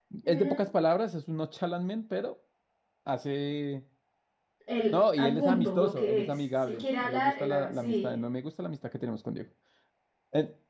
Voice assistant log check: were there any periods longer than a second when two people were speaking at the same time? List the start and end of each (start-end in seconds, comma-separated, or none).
4.9-8.2